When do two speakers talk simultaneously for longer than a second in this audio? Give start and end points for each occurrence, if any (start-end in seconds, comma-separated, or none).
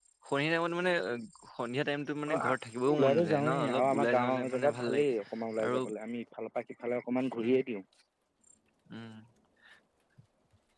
2.9-5.0